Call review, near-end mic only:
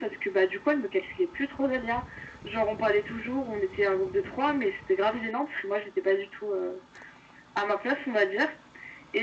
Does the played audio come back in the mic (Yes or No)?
Yes